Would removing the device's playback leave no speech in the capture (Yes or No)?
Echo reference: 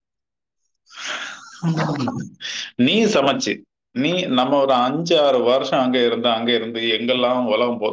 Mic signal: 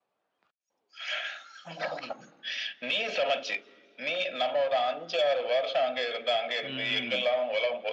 No